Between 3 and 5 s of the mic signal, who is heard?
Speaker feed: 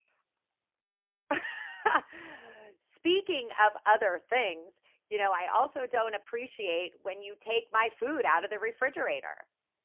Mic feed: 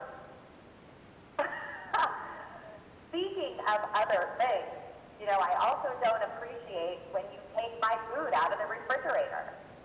echo only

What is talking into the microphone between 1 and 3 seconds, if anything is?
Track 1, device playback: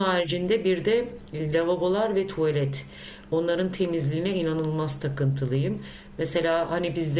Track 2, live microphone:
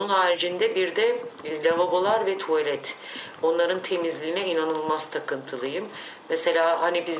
echo only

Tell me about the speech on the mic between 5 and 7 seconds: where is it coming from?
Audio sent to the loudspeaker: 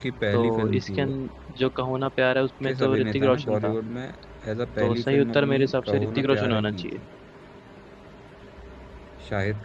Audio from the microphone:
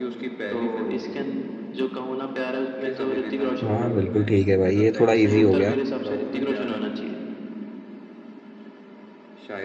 both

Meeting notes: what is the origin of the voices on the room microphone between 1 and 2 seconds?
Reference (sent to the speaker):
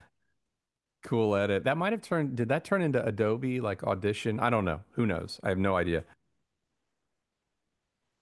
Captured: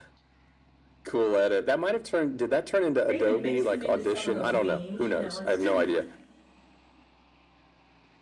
echo only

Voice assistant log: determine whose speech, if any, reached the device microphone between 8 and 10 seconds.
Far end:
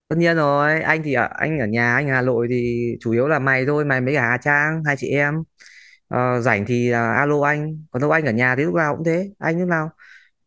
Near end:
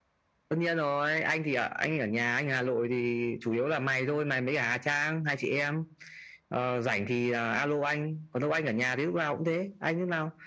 echo only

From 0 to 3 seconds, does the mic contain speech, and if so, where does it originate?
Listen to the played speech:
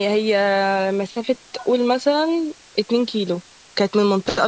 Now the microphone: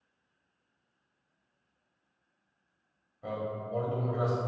neither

